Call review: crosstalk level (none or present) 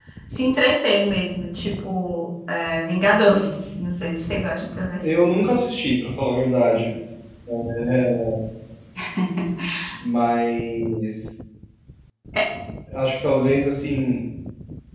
none